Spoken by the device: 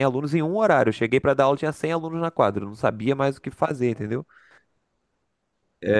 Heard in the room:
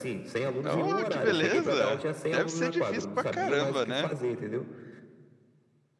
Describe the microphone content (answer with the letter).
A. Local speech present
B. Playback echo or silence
A